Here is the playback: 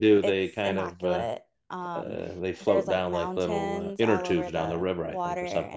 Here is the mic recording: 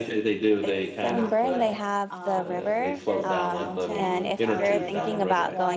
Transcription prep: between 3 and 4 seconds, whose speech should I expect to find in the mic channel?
both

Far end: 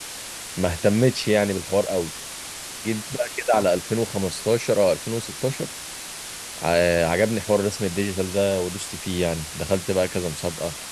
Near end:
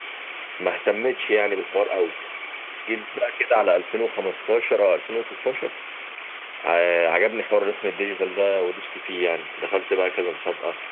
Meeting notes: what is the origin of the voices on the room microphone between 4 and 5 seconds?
echo only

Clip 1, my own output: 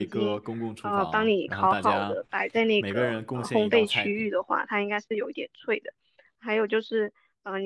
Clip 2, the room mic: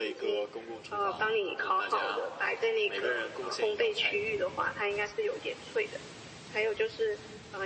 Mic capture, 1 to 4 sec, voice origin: echo only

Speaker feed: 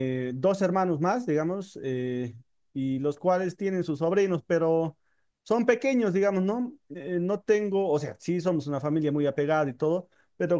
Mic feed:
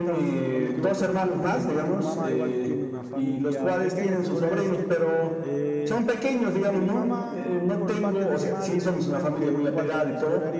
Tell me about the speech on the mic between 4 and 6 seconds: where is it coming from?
both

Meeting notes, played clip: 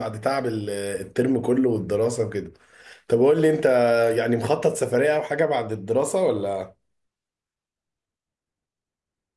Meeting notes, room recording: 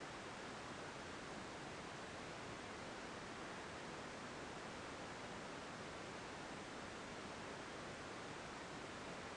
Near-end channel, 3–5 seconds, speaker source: neither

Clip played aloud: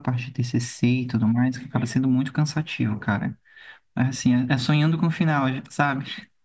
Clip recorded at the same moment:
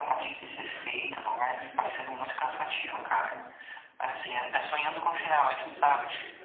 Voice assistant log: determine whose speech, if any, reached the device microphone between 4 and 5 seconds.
both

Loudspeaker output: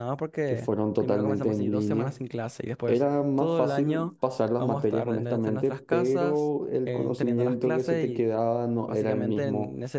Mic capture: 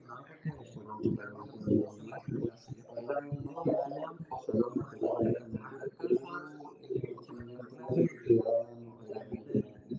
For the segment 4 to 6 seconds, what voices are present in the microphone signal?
echo only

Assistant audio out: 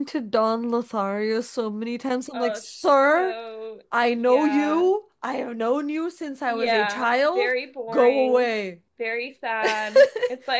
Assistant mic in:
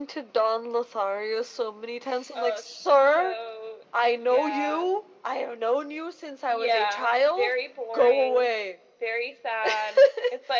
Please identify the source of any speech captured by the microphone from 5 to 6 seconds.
echo only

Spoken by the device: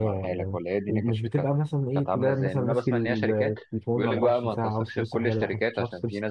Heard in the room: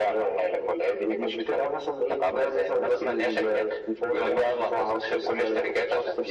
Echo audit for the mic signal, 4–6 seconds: echo only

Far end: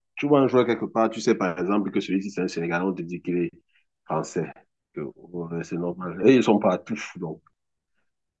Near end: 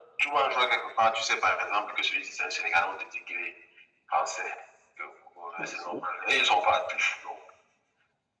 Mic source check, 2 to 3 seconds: echo only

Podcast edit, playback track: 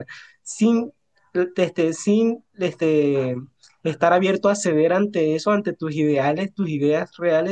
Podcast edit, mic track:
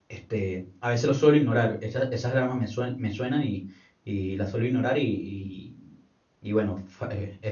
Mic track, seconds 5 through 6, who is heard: user only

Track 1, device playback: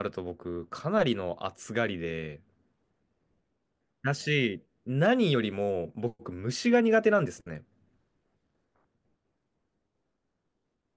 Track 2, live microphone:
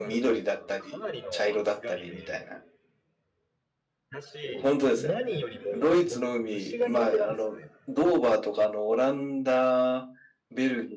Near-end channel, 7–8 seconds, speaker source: both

